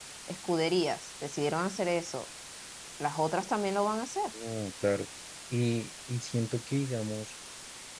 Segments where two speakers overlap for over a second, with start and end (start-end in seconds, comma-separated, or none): none